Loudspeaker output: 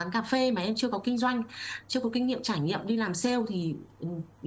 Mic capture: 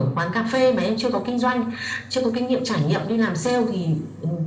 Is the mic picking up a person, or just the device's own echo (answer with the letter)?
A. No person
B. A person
A